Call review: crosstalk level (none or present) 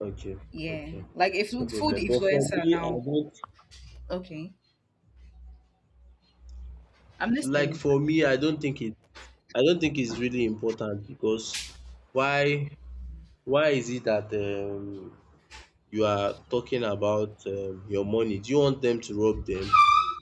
present